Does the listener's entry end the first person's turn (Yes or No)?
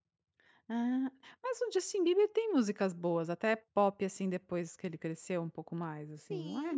Yes